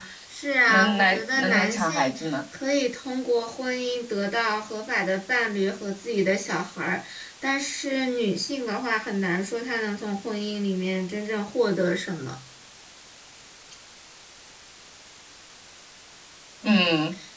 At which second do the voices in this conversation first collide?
0.7 s

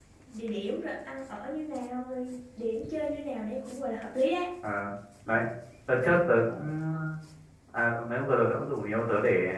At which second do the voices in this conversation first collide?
none

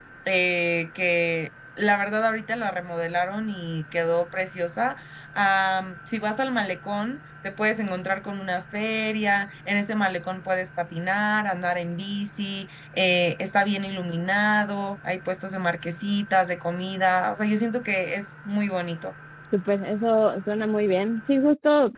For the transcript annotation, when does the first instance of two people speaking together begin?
none

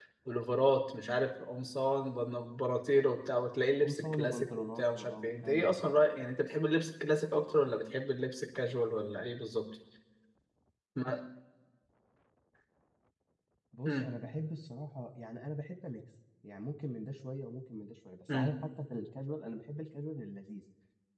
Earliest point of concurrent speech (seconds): 3.8 s

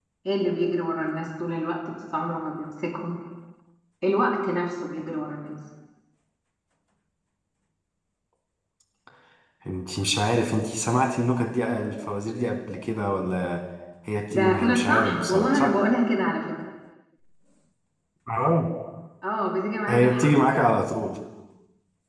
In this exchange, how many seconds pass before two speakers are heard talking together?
14.3 s

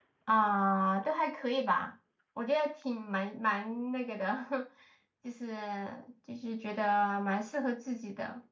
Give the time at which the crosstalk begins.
none

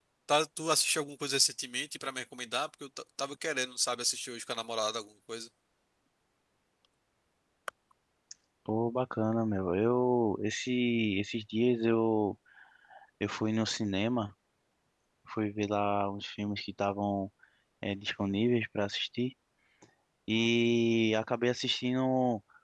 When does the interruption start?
none

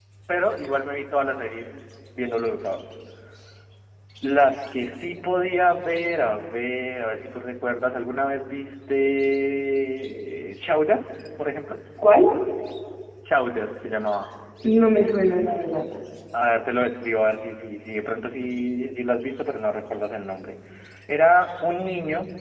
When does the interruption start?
none

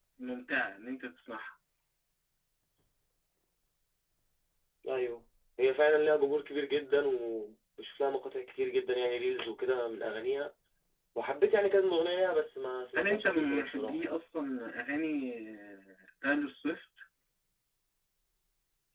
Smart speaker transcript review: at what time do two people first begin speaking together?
12.9 s

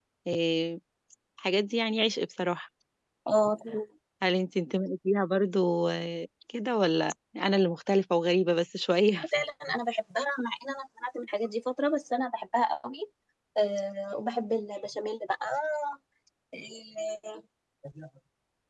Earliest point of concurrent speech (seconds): none

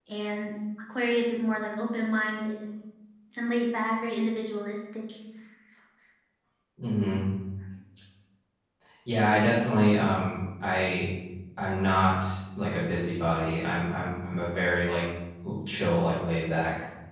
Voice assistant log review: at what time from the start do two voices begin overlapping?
none

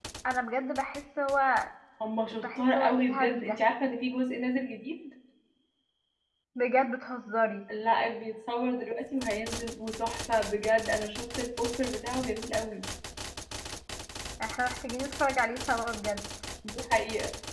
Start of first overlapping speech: 2.3 s

